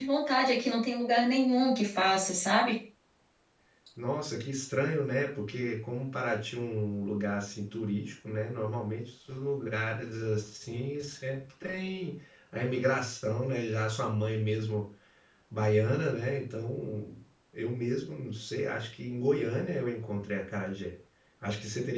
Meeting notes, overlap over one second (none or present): none